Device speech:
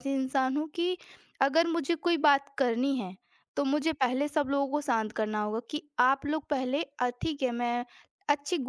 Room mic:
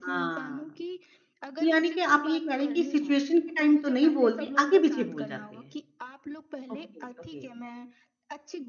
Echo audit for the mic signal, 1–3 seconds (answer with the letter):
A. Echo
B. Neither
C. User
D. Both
D